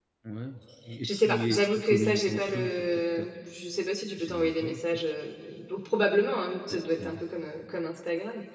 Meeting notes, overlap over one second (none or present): present